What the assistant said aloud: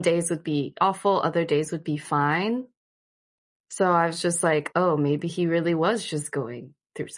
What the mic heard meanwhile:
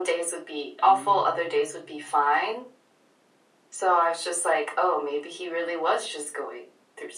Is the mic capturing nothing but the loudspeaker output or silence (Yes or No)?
No